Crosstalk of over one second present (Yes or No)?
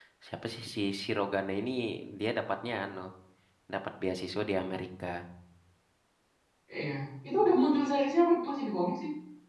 No